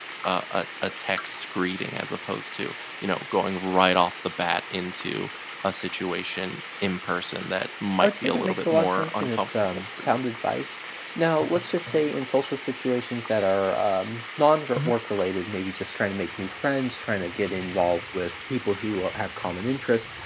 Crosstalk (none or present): present